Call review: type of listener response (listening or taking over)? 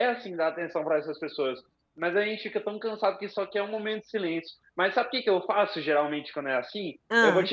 listening